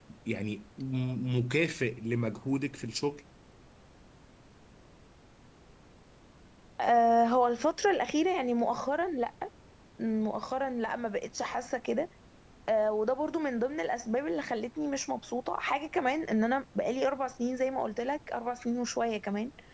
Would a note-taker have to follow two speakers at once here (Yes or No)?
No